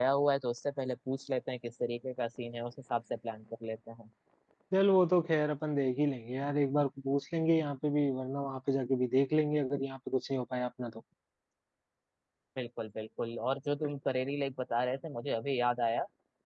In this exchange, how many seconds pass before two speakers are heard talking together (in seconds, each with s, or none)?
none